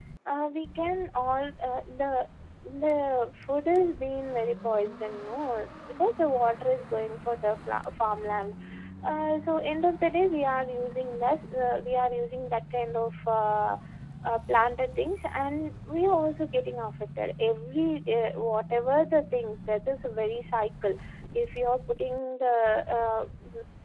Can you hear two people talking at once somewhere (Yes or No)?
No